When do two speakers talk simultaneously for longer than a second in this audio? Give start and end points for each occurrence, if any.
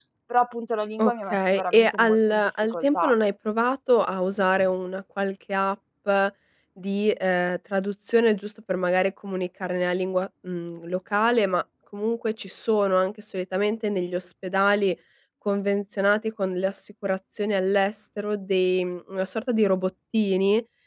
1.0-3.1

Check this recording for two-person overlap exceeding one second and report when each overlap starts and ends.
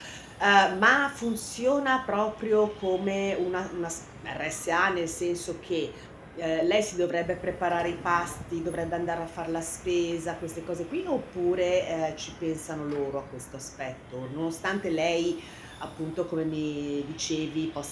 none

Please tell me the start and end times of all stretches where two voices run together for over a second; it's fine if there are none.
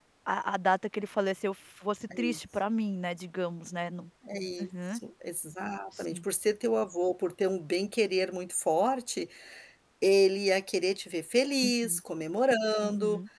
none

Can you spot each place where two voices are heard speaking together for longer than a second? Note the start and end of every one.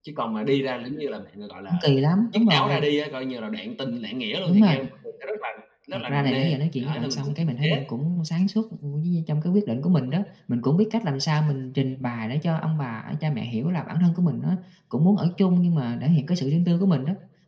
5.9-7.7

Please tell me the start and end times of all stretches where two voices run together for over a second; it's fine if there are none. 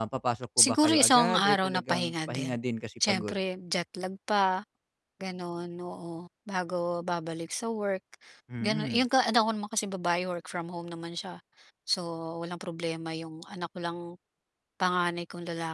0.6-2.6

